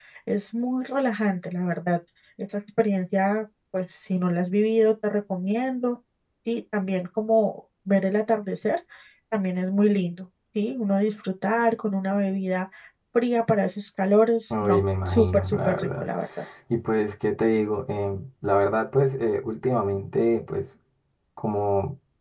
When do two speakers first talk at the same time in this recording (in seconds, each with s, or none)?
14.5 s